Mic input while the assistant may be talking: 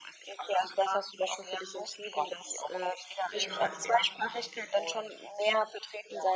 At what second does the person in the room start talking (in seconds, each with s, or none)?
3.3 s